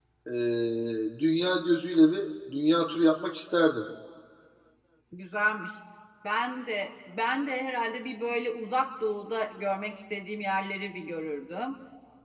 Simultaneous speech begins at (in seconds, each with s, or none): none